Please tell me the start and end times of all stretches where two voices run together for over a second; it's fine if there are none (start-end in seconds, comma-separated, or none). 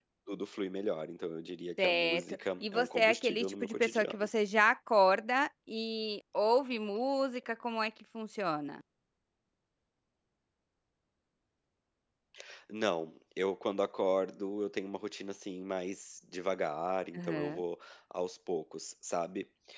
1.8-4.3